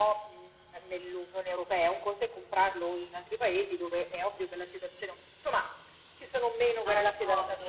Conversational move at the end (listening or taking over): taking over